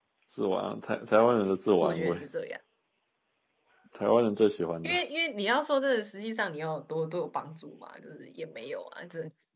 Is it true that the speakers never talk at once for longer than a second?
Yes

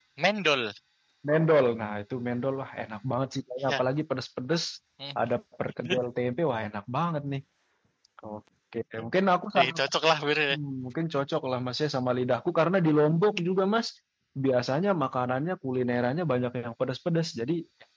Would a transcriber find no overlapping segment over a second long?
Yes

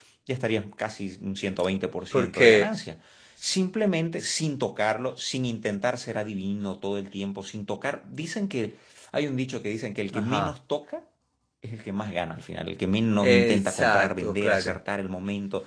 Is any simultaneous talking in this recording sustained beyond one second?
Yes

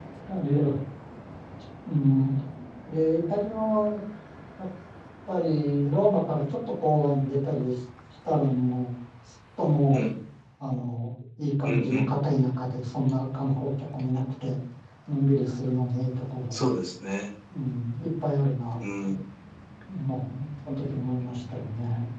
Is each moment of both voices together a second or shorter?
Yes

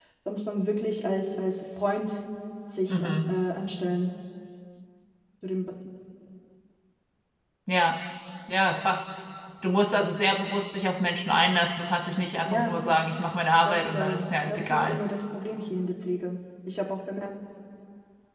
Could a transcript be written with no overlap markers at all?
No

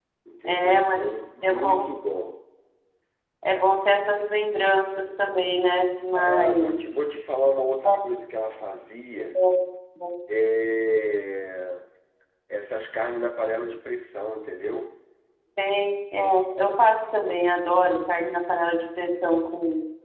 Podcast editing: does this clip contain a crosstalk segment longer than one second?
Yes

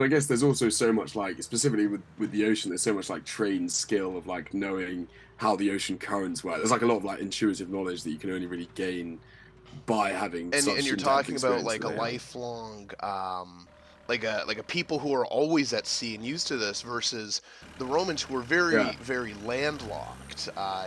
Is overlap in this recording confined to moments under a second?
No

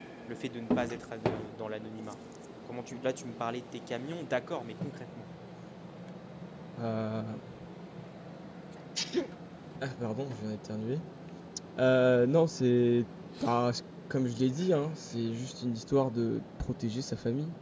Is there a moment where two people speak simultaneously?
No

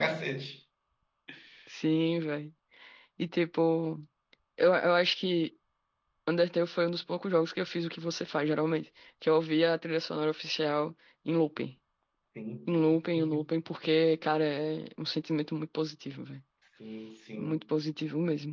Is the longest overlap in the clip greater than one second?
No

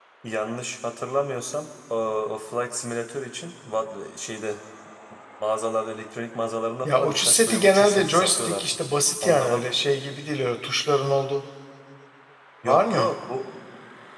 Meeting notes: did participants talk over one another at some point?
Yes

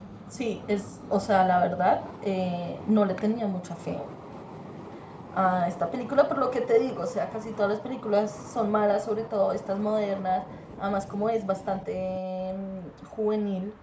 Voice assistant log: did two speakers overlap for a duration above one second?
No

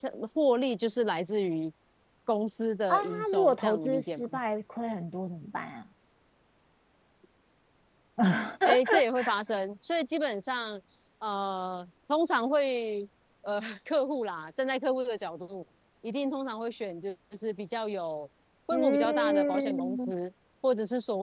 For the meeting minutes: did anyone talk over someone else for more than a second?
Yes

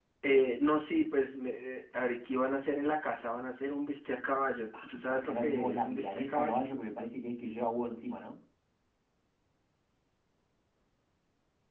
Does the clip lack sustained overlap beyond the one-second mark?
No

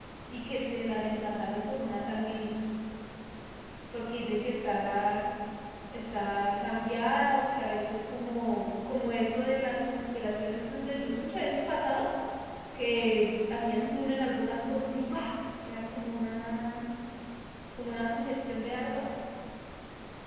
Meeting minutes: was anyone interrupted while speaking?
No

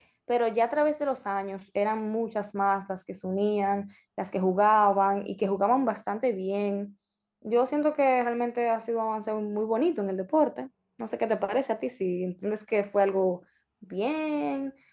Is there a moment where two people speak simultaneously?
No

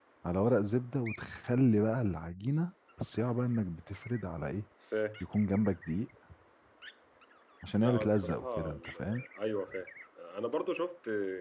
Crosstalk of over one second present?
Yes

